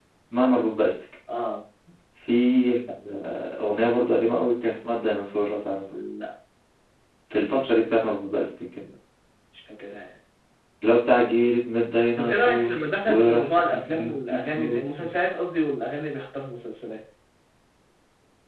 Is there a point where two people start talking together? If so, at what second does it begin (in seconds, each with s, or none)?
12.2 s